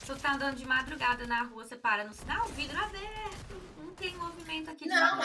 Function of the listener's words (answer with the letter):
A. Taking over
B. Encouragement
A